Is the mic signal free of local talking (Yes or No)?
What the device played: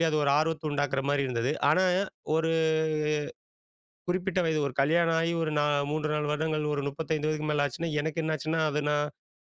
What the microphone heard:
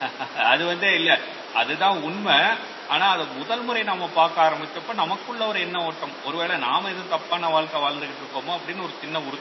No